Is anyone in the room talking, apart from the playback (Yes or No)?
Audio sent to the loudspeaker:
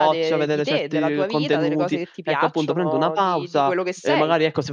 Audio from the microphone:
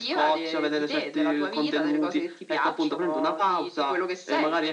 No